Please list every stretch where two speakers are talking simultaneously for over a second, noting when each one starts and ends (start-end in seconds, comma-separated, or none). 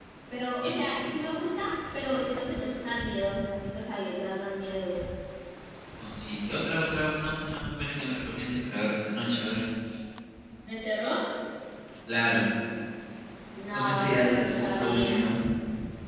13.7-15.2